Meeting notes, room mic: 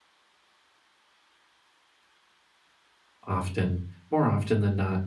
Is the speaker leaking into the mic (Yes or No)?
No